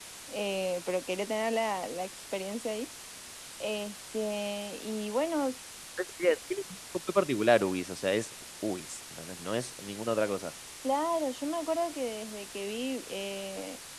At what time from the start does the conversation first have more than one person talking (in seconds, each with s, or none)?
none